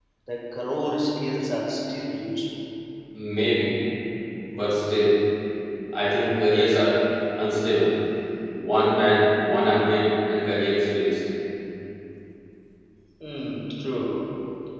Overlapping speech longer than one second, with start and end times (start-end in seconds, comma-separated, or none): none